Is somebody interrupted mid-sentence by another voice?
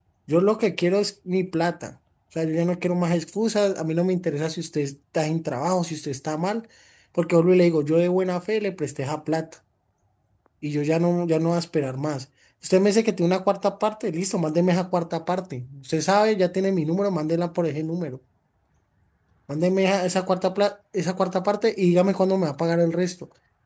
No

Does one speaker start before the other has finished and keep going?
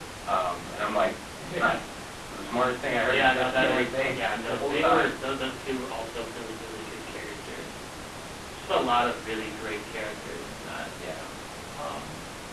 Yes, from 3.1 s

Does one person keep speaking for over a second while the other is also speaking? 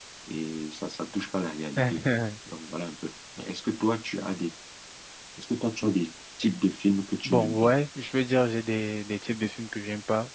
No

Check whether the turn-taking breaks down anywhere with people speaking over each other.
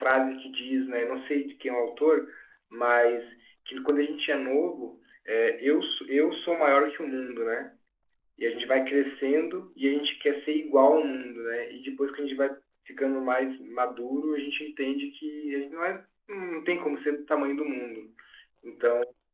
No

